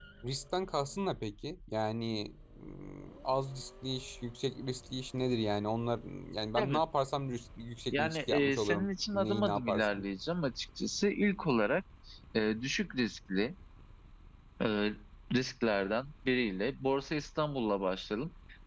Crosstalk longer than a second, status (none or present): present